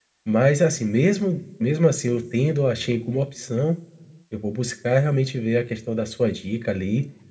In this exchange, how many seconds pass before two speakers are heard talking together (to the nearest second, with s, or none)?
none